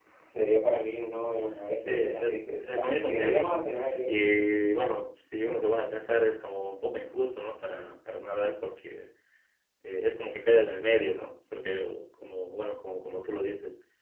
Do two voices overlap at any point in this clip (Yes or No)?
Yes